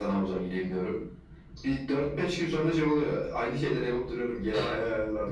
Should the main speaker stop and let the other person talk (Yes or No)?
Yes